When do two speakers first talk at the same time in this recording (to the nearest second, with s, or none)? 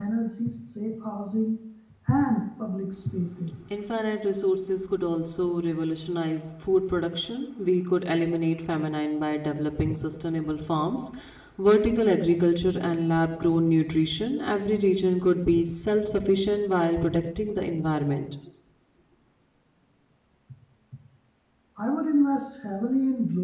none